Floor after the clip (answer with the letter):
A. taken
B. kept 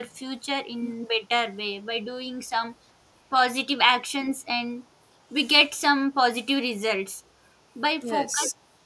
B